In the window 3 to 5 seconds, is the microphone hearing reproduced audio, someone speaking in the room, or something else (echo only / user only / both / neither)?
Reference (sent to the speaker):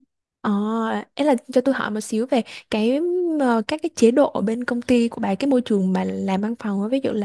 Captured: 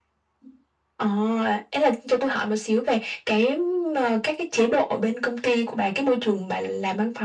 echo only